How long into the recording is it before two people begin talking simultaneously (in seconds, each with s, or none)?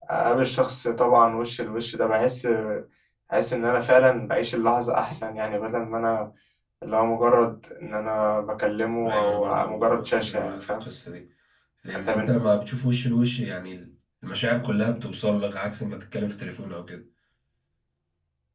9.0 s